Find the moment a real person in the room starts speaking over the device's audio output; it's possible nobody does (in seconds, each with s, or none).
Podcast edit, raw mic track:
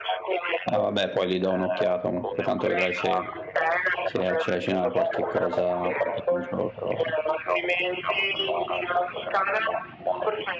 0.7 s